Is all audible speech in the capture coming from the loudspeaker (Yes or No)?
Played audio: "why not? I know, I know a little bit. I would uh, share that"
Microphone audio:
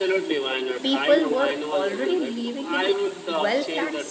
No